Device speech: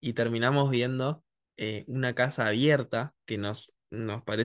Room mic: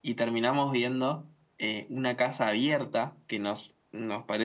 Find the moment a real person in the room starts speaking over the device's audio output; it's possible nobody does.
none

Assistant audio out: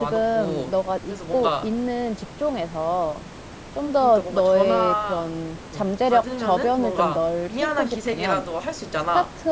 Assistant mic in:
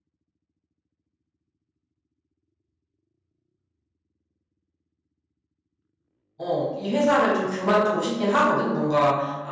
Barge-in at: 6 s

